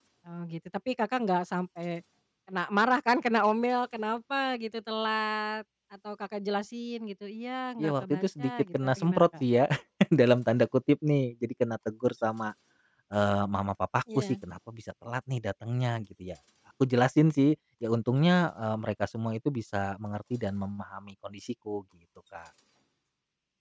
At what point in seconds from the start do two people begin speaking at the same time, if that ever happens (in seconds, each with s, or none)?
7.8 s